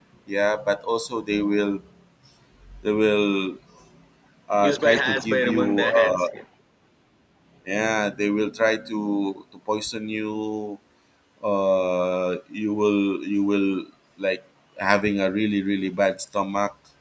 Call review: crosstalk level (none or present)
present